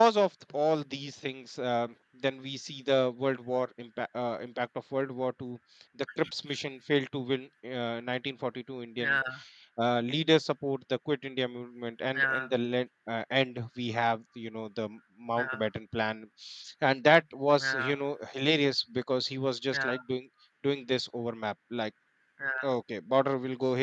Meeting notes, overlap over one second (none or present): none